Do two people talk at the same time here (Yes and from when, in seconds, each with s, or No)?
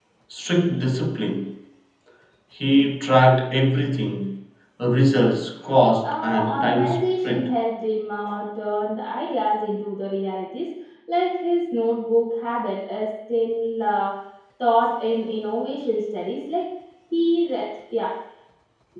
Yes, from 6.0 s